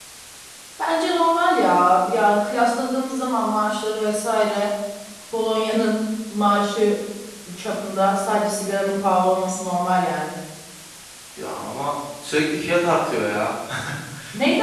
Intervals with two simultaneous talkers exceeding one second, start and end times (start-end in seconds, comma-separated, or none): none